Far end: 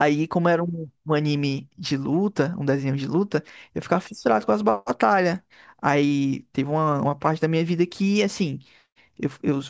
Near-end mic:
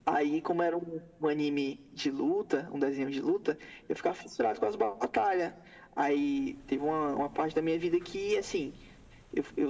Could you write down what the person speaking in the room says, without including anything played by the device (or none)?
none